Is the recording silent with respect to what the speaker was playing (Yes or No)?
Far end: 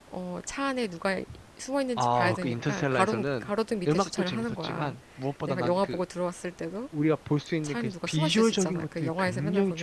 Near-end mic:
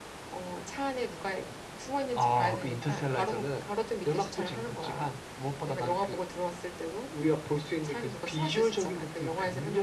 No